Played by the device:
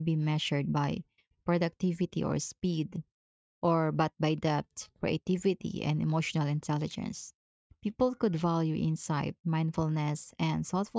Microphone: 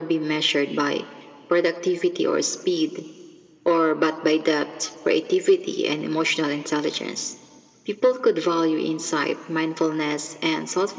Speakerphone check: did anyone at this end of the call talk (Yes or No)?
No